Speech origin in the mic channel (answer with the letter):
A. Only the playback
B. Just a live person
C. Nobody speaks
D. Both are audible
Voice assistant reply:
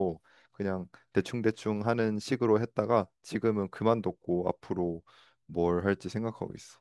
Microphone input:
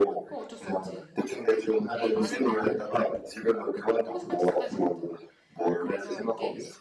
D